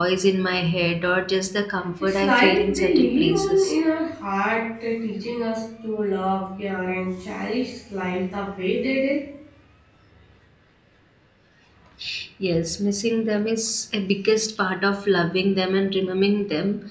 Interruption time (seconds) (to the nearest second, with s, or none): 2 s